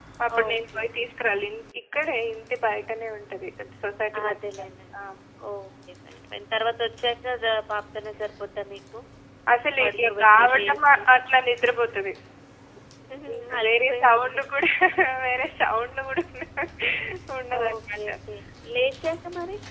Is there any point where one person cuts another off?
Yes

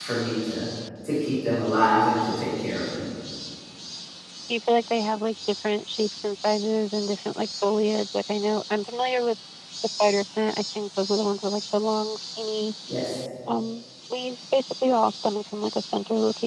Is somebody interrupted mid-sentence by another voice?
No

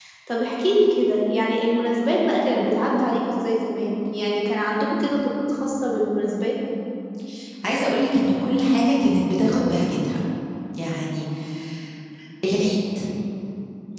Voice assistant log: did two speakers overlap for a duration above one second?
No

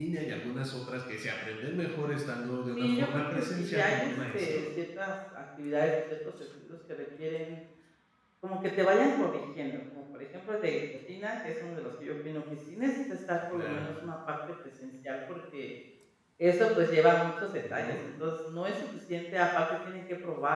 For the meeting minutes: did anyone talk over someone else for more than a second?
Yes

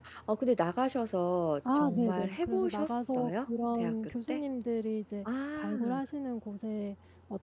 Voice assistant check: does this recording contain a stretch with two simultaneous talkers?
Yes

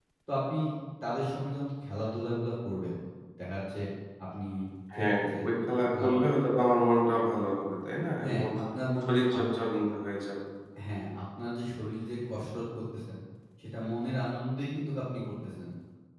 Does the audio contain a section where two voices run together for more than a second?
No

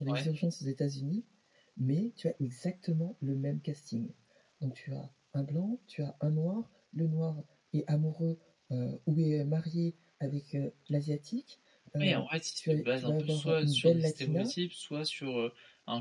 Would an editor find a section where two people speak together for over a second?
Yes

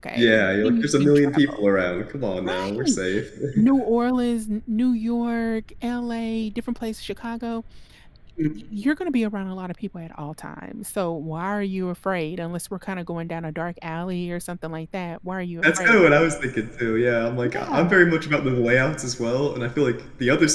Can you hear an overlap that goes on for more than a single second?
Yes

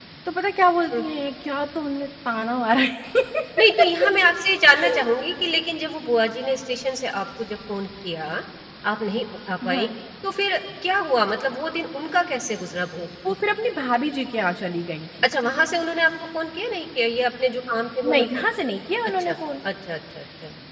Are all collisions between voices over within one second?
Yes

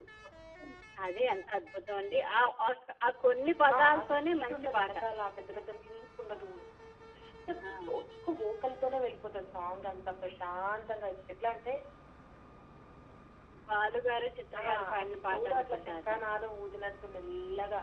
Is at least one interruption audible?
Yes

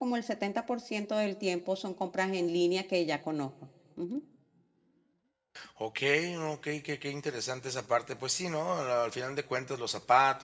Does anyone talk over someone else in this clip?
No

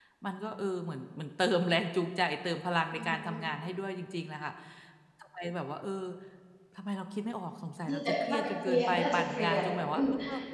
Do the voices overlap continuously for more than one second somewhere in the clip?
Yes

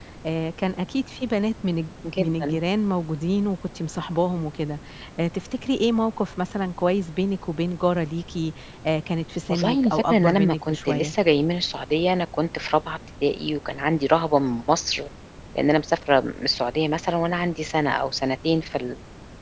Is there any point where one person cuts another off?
Yes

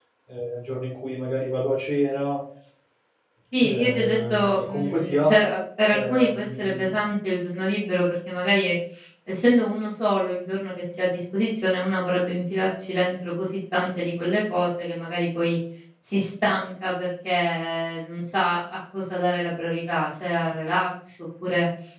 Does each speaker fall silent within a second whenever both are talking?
No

